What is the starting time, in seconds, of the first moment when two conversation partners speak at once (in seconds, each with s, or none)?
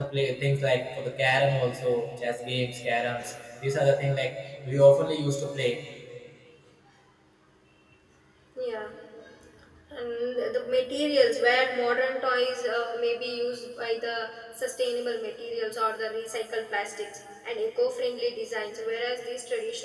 none